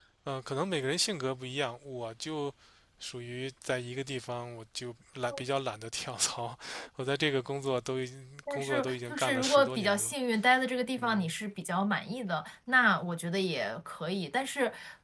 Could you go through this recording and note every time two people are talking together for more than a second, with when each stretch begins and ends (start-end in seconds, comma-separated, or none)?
8.5-10.1